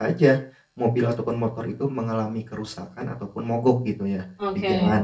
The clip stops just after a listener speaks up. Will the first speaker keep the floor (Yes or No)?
Yes